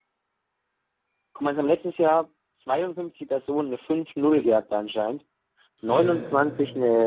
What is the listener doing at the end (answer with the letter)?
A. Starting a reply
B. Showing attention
B